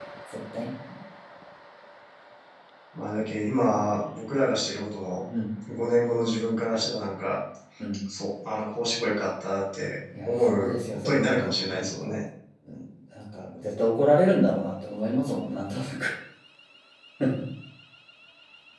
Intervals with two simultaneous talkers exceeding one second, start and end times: 10.2-12.2

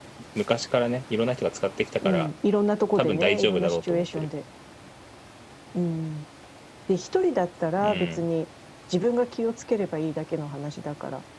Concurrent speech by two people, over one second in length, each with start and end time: 3.0-4.2

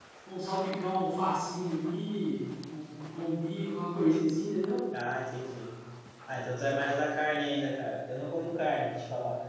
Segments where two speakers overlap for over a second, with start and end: none

